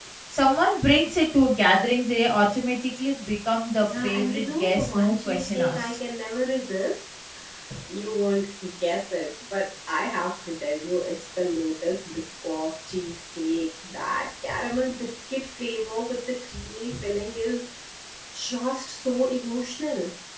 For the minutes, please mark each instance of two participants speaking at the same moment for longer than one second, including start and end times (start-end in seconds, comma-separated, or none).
3.8-5.9